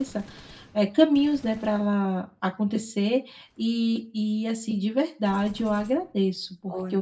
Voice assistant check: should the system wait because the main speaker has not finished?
Yes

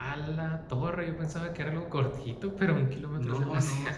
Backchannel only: No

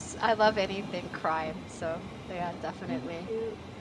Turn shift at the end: Yes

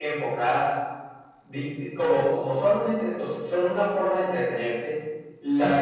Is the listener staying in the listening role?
Yes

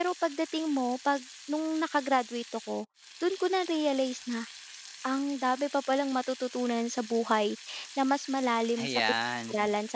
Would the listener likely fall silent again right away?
Yes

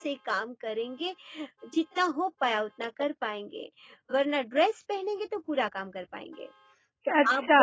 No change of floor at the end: Yes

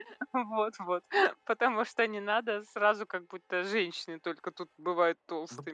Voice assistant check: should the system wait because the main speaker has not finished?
No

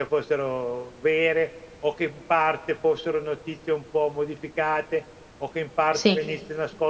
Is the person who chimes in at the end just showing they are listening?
Yes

